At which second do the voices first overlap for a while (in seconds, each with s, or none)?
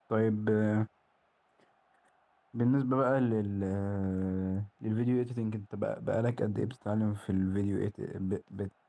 none